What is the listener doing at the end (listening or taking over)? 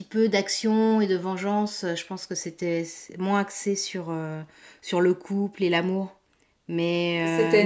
listening